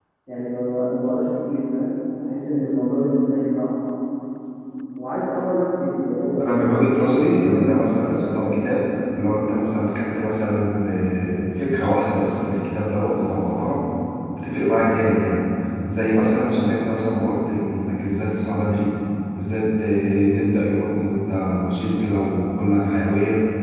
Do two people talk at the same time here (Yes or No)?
Yes